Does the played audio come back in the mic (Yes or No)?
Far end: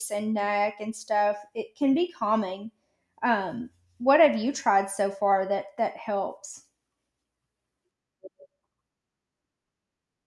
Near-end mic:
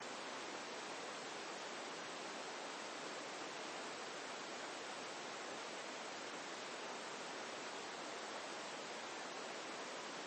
No